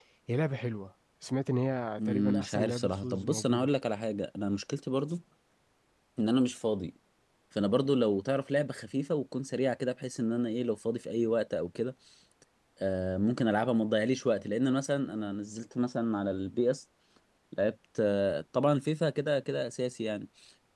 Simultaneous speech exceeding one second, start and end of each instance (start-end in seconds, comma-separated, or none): 2.0-3.7